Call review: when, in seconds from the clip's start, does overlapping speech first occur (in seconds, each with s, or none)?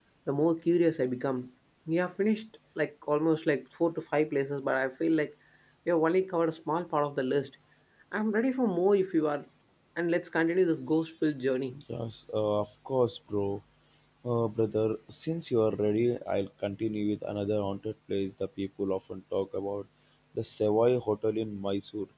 none